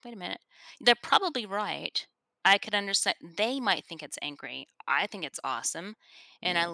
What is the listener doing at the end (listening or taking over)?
listening